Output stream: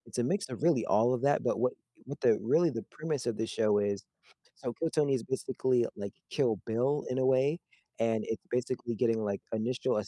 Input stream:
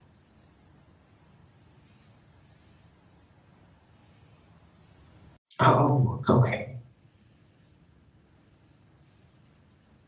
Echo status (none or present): none